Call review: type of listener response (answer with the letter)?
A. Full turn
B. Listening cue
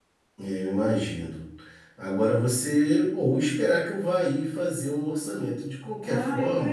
A